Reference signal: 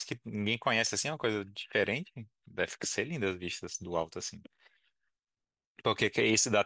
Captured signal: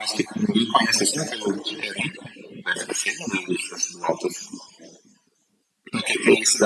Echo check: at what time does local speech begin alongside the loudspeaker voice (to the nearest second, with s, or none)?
none